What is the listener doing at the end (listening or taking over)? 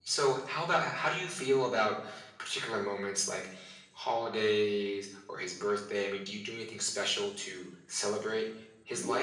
taking over